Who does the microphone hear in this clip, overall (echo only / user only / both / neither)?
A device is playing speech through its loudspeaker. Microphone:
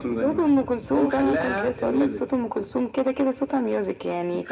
echo only